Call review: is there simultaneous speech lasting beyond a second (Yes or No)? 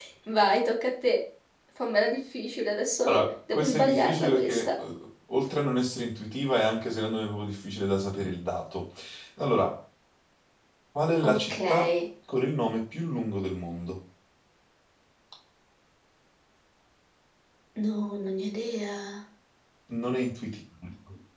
Yes